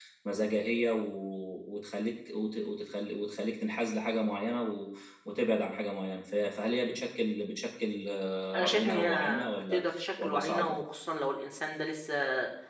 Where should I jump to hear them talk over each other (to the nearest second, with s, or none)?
9 s